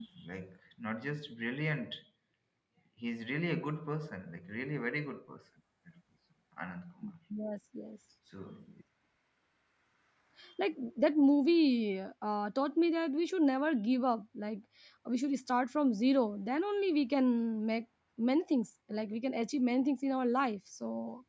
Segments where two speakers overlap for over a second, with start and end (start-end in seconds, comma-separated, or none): none